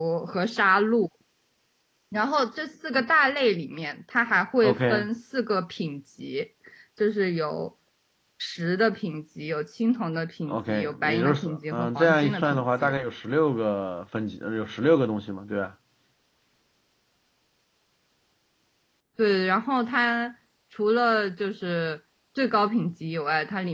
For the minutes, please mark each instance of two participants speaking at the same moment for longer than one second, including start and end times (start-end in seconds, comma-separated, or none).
10.5-12.9